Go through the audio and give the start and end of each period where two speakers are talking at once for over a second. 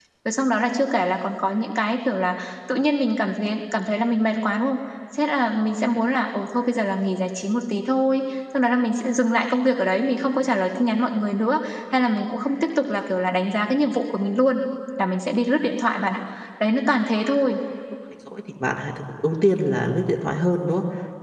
none

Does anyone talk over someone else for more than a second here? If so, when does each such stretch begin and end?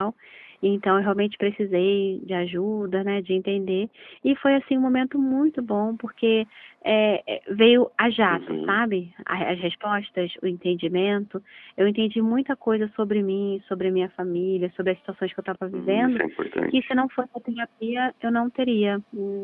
none

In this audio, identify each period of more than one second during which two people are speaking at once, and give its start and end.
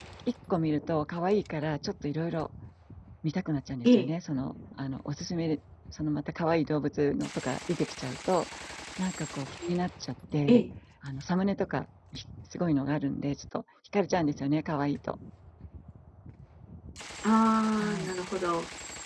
none

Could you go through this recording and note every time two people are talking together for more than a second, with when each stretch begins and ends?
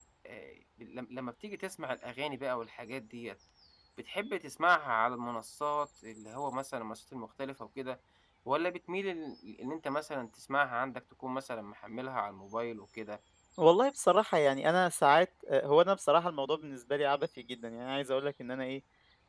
none

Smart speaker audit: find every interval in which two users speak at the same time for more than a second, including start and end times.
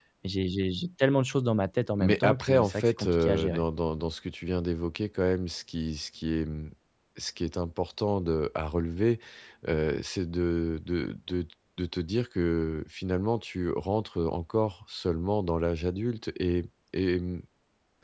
2.0-3.6

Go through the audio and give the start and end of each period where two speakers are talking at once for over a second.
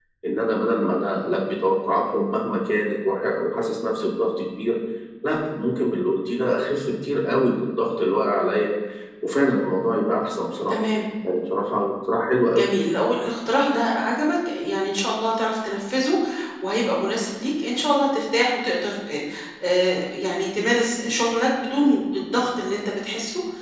none

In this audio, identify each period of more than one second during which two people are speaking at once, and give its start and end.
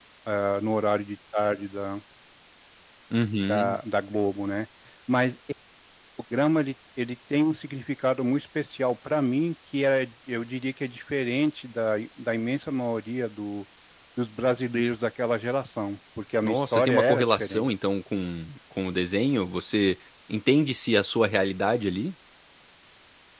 16.4-17.7

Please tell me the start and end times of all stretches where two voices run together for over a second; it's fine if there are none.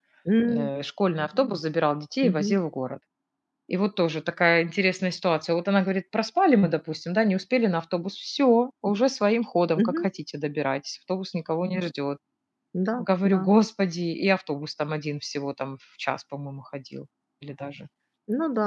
none

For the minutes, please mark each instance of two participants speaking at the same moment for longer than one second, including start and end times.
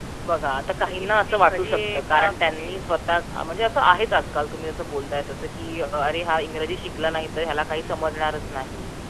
0.9-2.8

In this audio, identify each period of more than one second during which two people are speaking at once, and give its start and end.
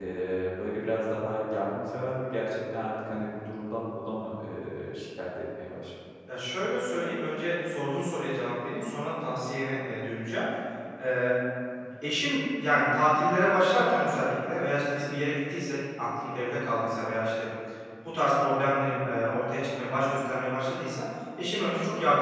none

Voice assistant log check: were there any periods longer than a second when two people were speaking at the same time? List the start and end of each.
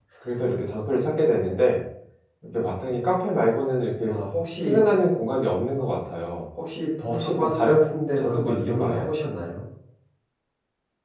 7.1-9.1

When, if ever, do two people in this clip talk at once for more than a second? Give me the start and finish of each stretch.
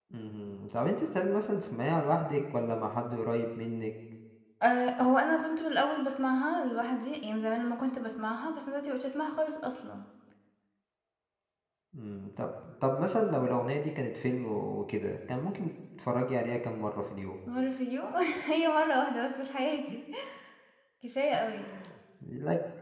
none

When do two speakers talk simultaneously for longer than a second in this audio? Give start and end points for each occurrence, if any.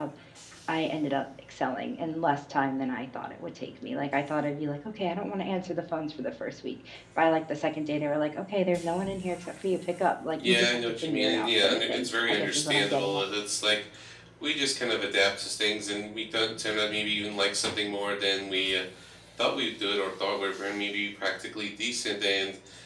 10.4-13.2

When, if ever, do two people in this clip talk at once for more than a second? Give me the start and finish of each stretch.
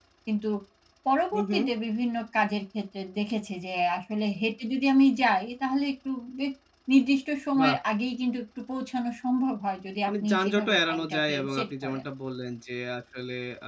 10.1-12.1

